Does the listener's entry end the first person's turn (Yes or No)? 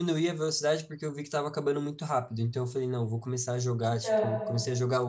No